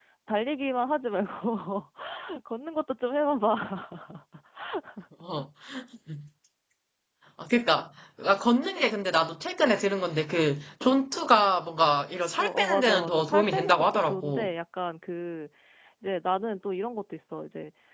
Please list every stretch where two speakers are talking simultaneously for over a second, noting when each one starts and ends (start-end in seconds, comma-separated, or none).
12.4-14.5